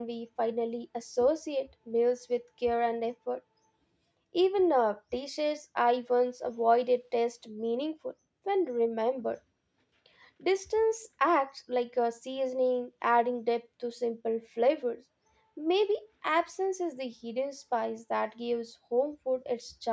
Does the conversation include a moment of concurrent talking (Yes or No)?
No